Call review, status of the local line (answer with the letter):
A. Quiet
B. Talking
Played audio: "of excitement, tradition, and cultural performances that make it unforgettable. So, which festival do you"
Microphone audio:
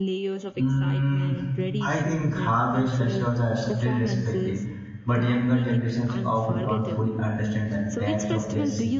B